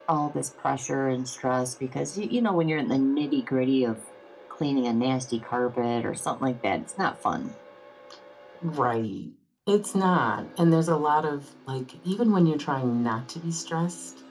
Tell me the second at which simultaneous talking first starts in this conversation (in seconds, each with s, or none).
none